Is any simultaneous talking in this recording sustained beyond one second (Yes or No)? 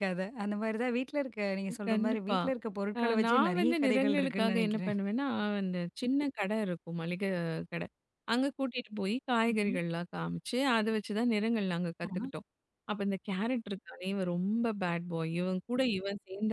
Yes